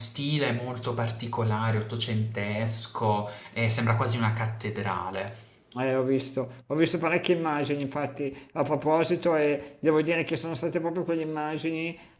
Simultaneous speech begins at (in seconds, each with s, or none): none